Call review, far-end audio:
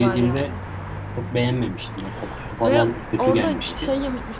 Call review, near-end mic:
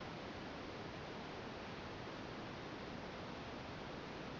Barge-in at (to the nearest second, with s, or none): none